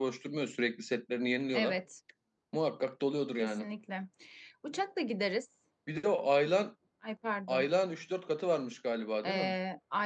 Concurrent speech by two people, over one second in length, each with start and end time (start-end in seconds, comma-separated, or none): none